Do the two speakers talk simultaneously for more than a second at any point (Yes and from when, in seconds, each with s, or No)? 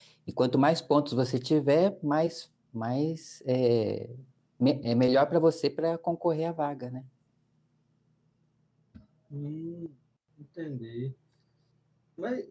No